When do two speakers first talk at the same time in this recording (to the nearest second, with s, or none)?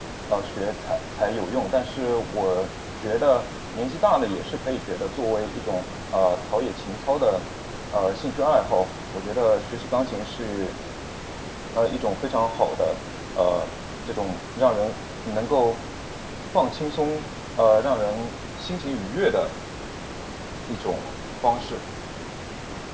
none